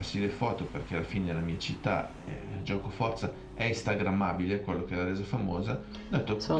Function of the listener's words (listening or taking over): listening